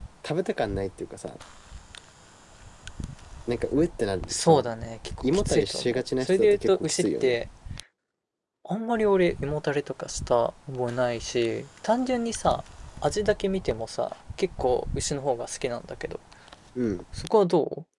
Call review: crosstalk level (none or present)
present